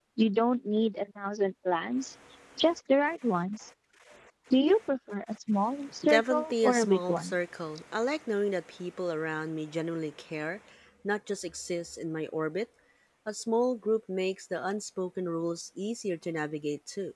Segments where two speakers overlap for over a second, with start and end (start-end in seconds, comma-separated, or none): 6.1-7.3